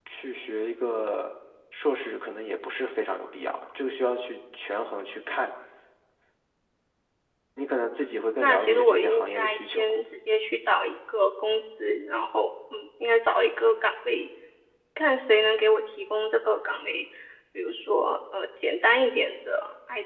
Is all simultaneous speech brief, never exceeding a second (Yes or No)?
No